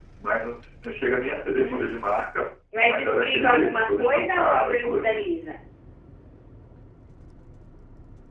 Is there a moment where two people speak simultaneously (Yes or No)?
Yes